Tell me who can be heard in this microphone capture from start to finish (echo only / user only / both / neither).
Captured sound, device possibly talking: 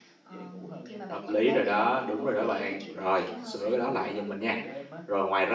both